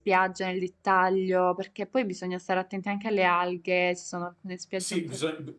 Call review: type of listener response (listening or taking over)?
taking over